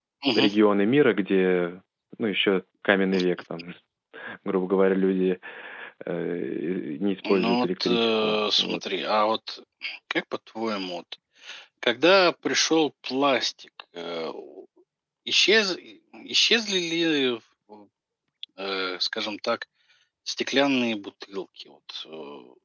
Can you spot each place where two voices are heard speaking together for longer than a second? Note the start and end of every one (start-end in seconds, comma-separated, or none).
7.3-8.8